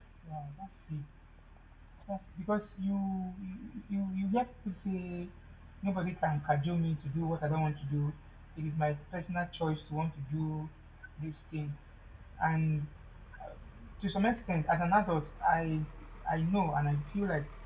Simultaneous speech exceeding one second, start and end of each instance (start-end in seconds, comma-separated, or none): none